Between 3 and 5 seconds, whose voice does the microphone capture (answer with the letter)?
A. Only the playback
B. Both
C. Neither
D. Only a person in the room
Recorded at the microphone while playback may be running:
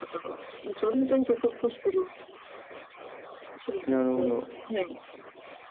B